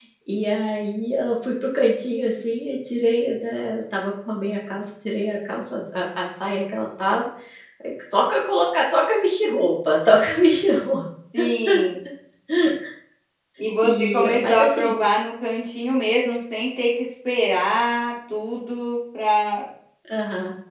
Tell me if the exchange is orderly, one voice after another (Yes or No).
No